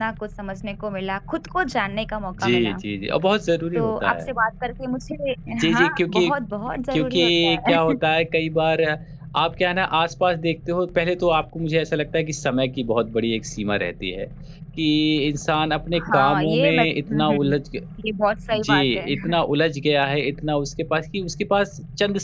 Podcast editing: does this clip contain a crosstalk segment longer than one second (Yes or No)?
Yes